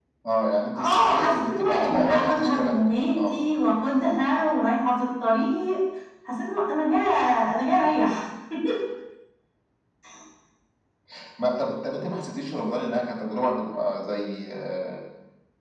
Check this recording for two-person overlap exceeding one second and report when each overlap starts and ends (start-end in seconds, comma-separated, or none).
0.8-2.8